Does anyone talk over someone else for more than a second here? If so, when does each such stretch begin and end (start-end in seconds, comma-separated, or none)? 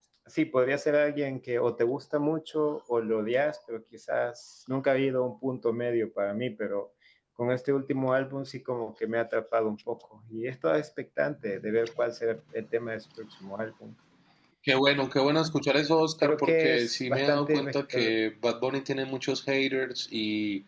16.2-17.6